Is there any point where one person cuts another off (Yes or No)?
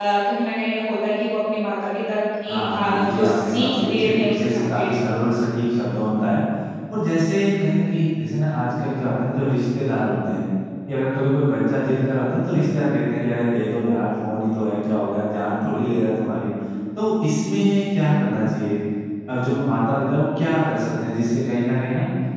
Yes